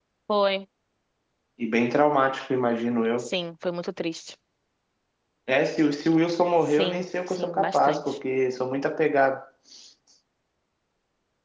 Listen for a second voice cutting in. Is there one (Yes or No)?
Yes